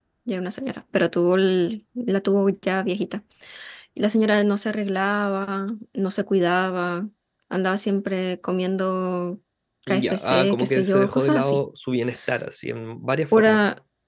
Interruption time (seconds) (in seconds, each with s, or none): 9.9 s